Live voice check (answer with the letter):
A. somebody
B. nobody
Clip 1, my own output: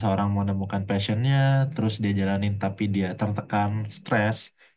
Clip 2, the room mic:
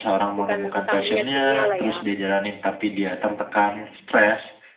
A